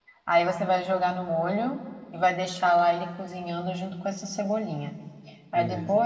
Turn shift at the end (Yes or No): No